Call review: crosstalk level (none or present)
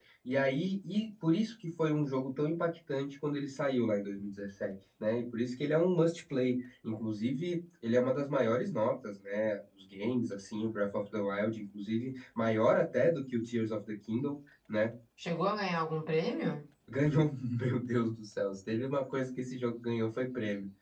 none